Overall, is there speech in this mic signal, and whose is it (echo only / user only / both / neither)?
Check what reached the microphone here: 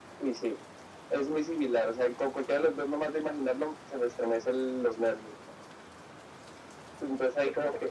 echo only